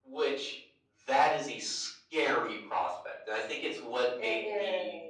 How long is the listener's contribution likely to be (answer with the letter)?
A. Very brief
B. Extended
A